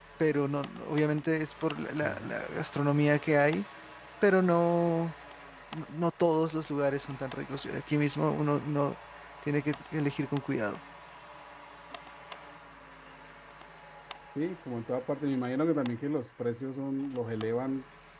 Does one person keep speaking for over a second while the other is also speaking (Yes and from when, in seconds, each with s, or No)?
No